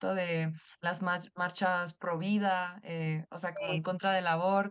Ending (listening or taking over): listening